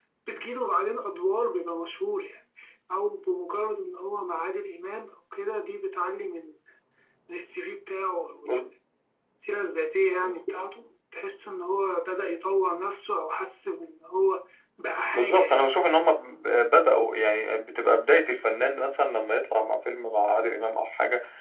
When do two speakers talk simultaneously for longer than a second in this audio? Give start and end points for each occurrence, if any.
none

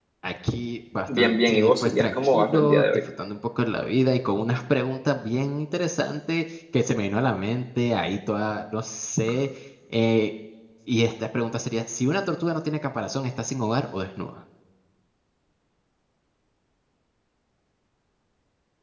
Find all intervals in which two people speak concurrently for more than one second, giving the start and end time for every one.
1.2-2.8

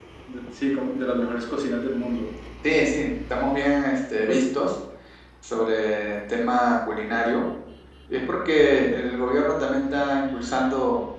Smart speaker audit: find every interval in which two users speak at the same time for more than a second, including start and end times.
none

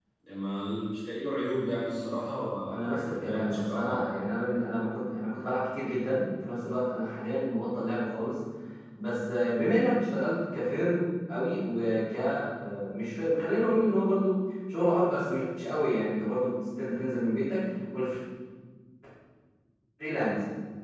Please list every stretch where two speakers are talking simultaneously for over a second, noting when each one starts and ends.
2.7-4.0

